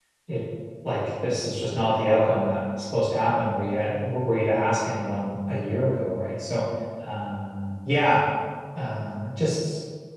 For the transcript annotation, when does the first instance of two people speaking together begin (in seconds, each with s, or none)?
none